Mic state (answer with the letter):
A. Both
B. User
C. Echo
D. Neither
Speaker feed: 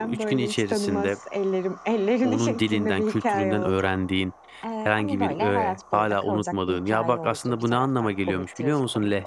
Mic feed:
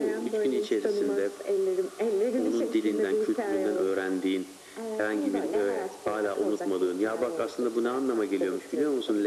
C